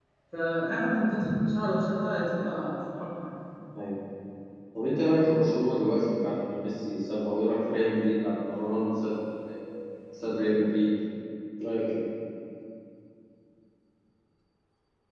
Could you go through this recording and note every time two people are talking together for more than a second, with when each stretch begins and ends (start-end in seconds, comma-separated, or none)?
none